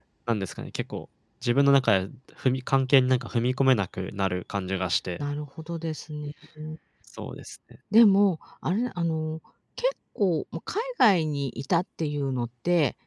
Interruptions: none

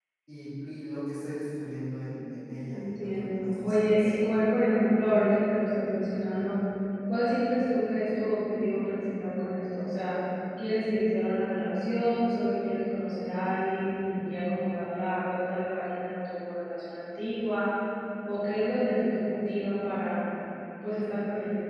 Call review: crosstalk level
present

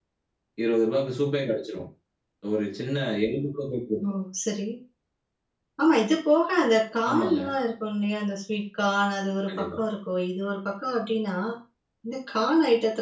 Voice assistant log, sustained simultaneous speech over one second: none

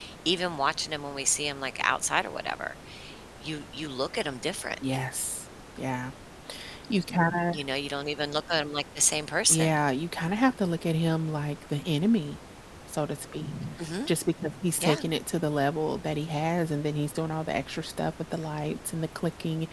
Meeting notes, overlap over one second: none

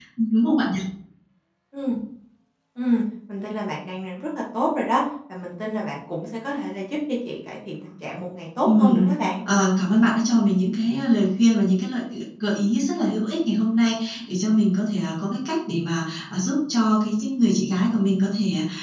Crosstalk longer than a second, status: none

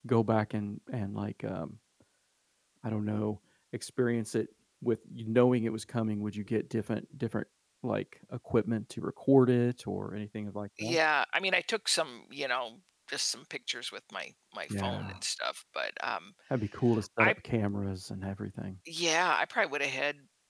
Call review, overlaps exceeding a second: none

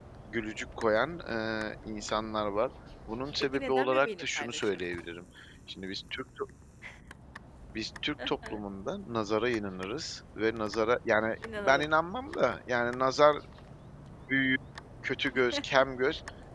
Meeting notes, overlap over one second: present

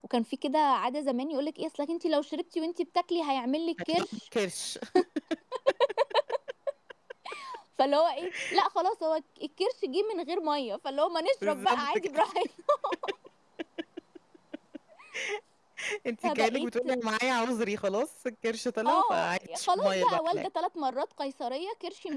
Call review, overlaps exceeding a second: present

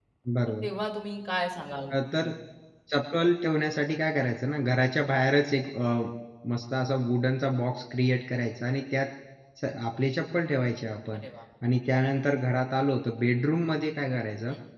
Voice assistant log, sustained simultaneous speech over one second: none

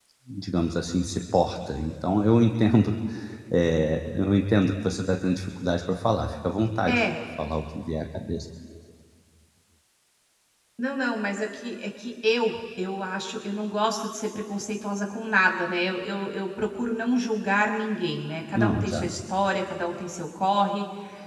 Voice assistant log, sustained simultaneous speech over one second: none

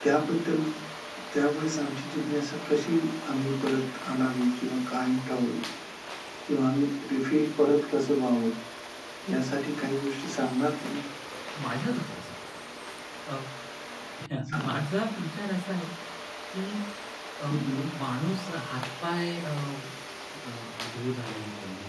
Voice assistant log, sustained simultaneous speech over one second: none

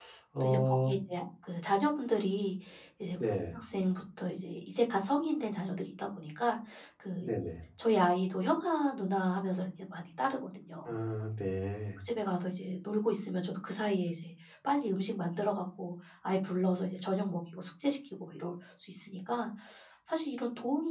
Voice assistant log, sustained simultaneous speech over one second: none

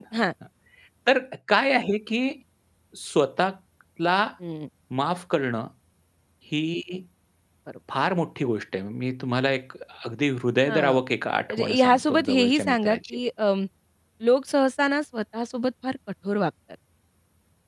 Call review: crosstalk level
present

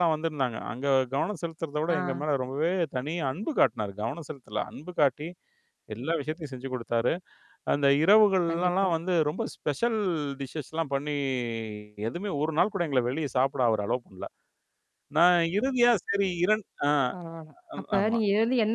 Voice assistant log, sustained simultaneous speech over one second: none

